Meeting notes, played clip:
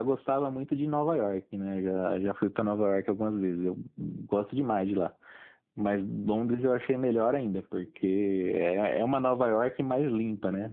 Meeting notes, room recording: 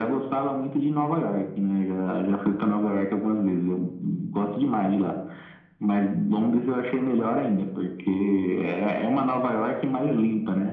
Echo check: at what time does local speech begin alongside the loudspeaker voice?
none

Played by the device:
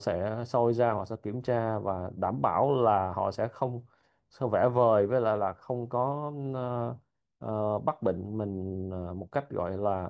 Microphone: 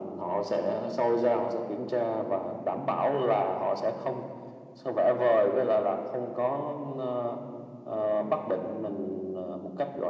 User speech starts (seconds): none

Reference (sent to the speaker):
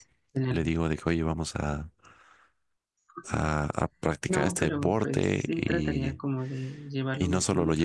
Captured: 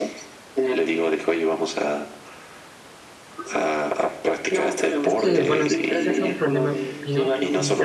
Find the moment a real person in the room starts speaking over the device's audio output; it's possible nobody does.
5.0 s

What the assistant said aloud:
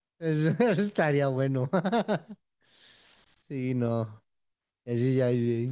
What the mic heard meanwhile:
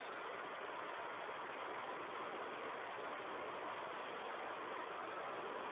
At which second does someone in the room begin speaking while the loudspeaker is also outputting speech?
none

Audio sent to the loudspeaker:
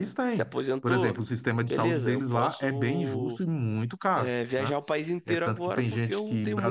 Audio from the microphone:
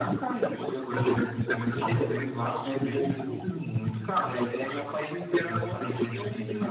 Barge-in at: none

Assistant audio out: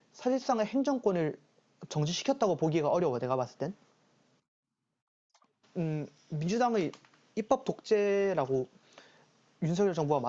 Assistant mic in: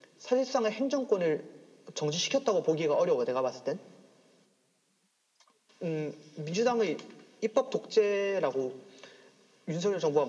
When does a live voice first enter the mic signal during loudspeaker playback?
none

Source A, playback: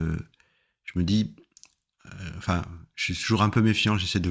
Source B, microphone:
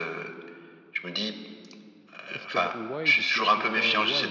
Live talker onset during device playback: 2.3 s

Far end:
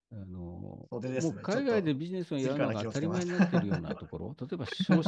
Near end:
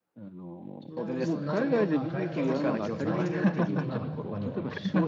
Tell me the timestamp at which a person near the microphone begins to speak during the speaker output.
0.8 s

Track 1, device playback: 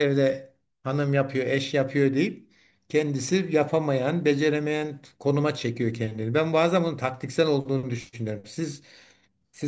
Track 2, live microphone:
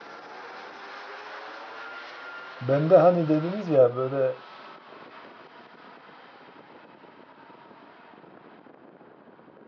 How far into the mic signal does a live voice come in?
2.6 s

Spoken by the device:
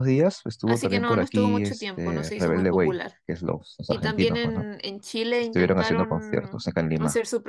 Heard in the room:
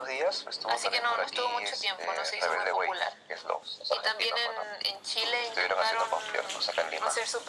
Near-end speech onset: none

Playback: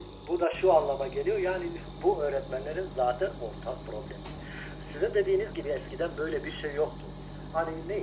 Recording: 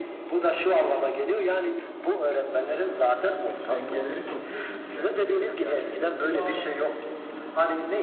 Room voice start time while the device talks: 3.5 s

